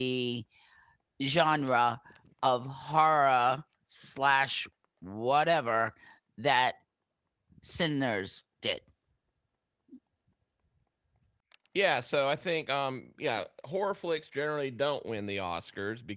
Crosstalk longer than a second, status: none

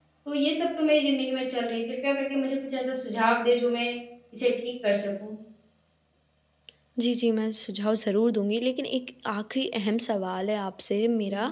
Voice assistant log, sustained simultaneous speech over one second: none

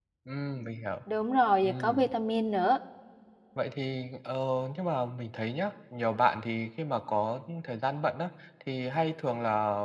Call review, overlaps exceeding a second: none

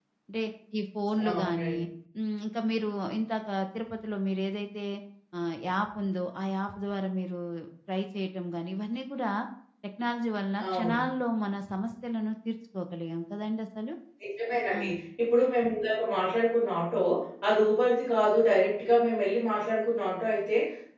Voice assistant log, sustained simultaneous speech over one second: none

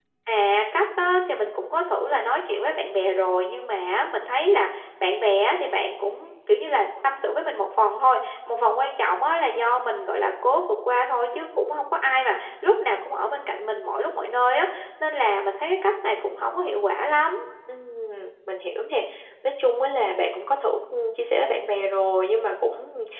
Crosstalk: none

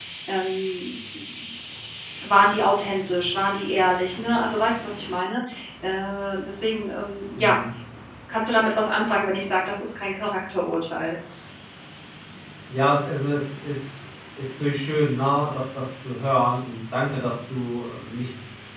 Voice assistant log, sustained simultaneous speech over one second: none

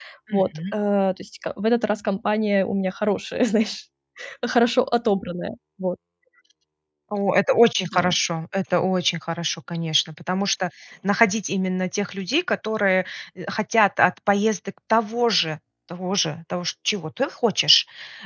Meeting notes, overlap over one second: none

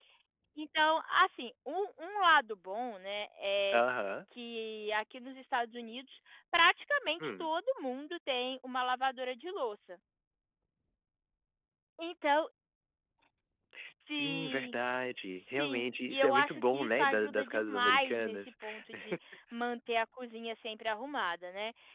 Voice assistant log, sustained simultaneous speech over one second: present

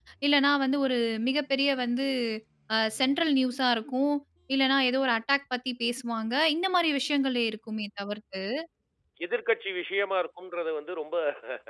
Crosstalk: none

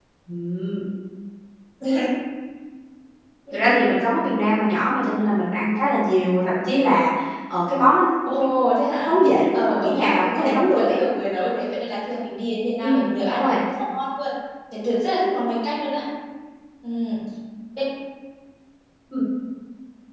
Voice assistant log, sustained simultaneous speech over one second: present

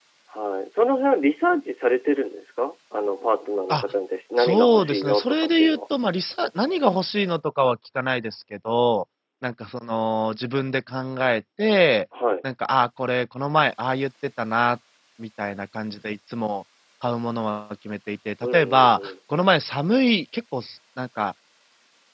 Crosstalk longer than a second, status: present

